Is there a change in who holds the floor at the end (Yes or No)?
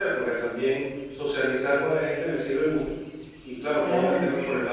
No